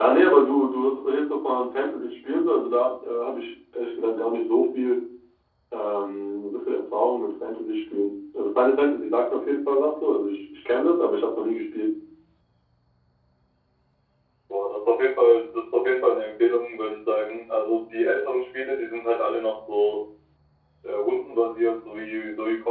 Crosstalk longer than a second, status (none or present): none